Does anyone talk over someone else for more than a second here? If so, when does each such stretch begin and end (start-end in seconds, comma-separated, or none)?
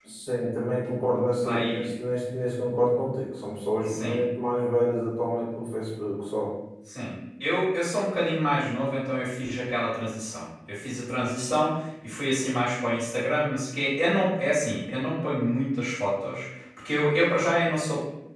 none